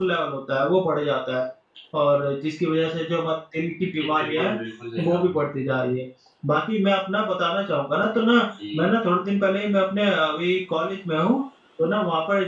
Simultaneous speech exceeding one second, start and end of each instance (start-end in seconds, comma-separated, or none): none